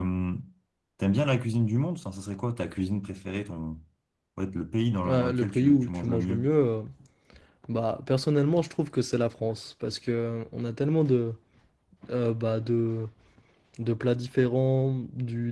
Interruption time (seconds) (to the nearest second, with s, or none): 5 s